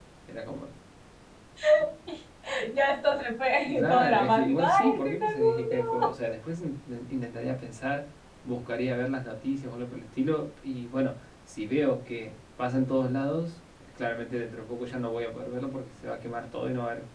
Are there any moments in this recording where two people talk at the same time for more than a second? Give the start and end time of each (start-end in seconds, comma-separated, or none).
3.9-6.1